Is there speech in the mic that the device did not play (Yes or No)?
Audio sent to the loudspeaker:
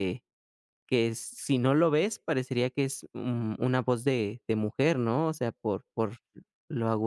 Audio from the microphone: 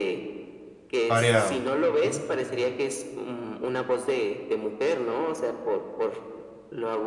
Yes